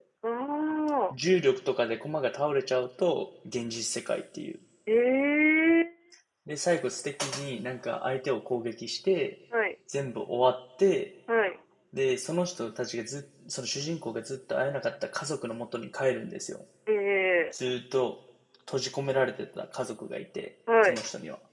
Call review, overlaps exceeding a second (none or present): none